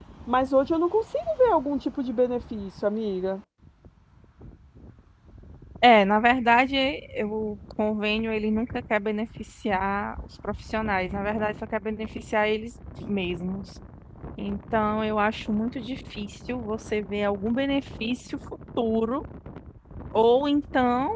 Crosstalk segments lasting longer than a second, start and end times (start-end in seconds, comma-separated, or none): none